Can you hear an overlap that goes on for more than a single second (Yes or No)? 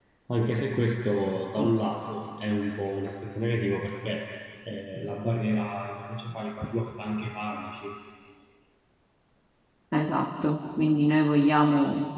No